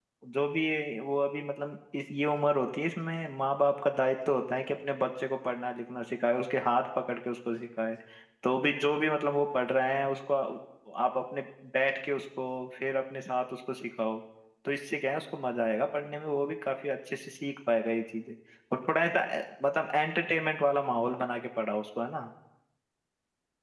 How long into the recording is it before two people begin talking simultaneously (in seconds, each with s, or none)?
none